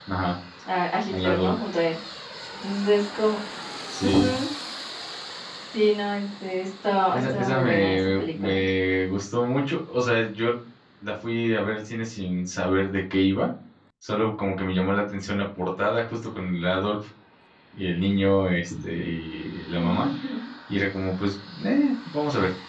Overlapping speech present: Yes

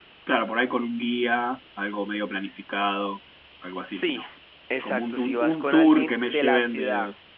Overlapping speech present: Yes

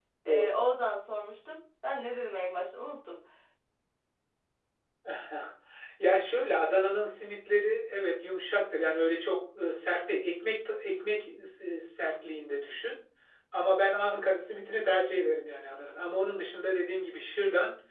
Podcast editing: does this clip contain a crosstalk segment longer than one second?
No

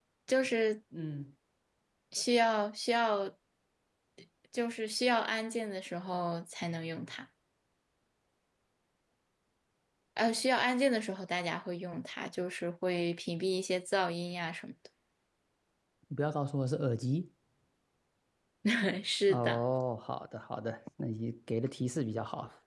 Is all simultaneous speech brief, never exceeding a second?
Yes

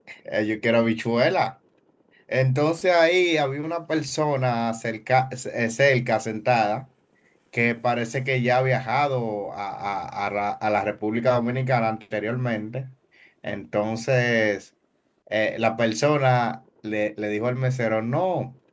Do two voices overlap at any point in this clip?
No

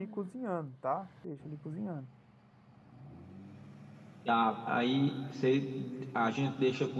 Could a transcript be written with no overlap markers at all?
Yes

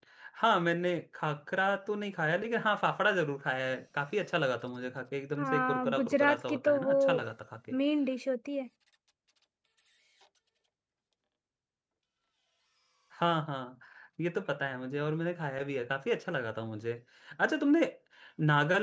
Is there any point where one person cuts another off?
Yes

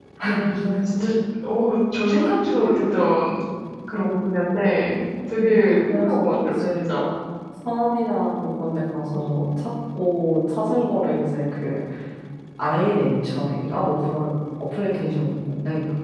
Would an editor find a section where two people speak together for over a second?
Yes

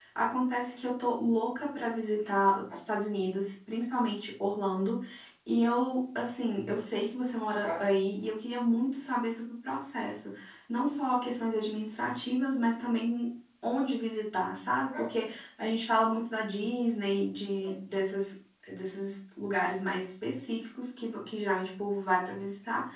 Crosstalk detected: No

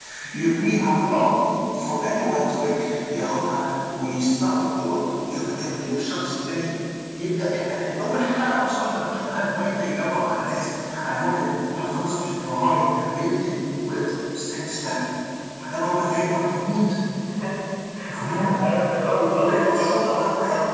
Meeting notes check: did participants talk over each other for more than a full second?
Yes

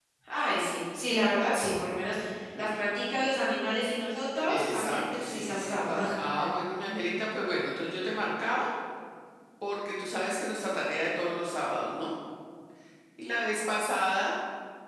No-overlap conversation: No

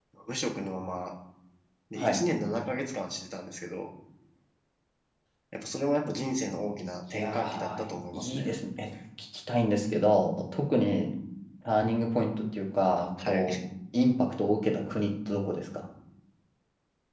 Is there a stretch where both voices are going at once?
Yes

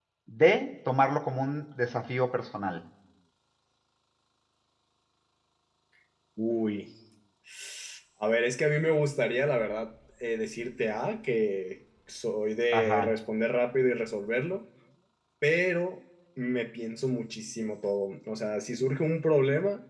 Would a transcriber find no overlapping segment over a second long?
Yes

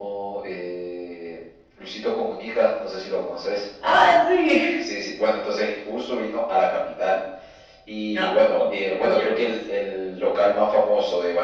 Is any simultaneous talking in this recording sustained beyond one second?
Yes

